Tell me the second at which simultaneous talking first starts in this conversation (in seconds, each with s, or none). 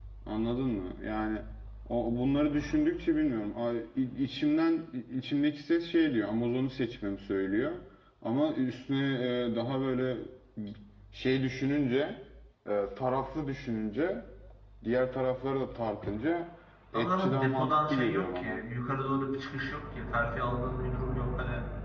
16.9 s